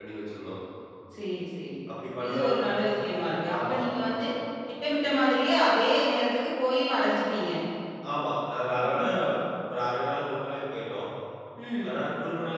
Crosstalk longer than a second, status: none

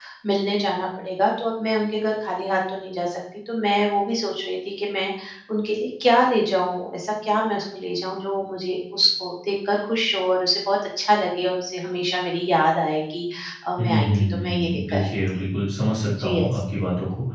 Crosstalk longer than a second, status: present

